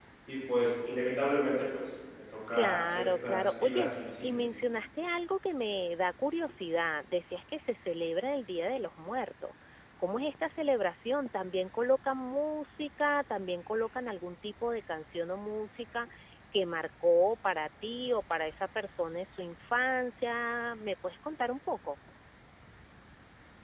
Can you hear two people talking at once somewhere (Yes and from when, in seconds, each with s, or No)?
Yes, from 2.5 s